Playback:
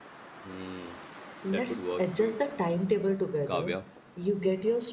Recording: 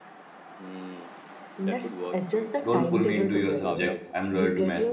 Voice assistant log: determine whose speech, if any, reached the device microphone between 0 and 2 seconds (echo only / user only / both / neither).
echo only